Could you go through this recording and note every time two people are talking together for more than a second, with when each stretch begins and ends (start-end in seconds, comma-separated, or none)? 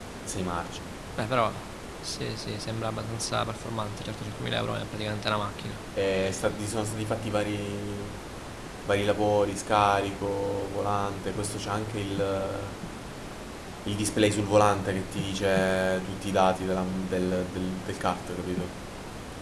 none